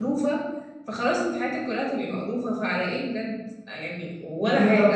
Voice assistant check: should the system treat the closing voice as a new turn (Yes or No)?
Yes